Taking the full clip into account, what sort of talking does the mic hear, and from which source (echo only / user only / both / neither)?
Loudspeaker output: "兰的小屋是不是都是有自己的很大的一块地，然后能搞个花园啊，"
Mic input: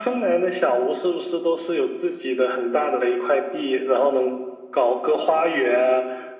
echo only